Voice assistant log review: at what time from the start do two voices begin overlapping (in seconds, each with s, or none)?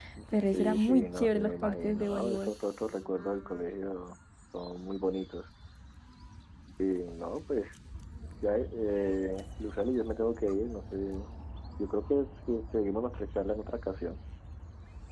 0.5 s